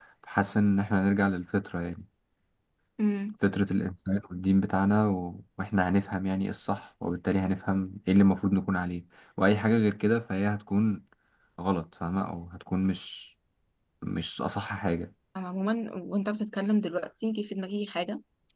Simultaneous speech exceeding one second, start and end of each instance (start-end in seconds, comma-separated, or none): none